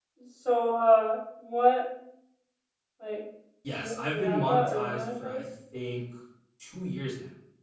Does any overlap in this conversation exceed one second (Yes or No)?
Yes